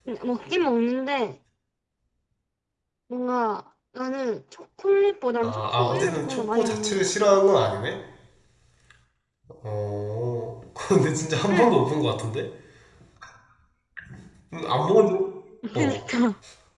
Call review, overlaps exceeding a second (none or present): present